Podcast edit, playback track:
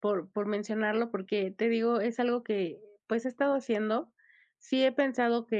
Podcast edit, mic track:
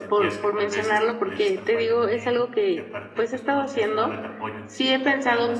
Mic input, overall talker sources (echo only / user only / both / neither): both